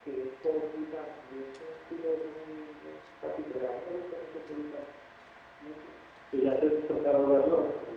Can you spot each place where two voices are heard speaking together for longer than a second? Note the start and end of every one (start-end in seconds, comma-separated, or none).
none